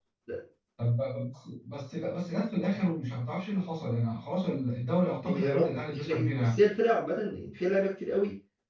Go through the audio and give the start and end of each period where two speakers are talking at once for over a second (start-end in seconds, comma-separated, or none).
5.2-6.6